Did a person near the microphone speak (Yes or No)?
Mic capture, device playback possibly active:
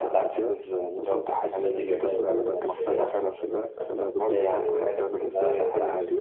Yes